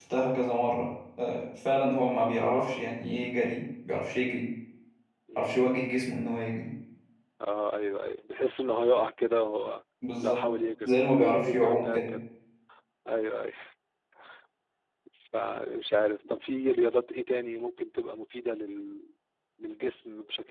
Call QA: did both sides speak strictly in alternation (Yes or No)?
No